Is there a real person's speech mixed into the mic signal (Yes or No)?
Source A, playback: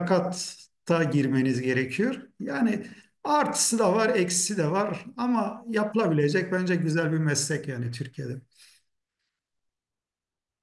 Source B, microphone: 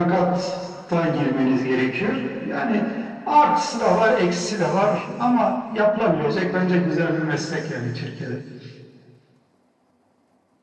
No